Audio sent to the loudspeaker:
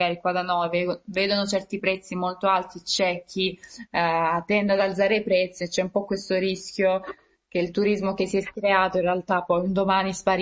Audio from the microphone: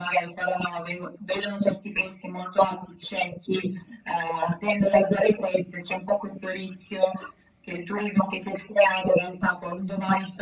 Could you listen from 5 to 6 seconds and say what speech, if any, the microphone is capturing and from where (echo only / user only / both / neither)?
echo only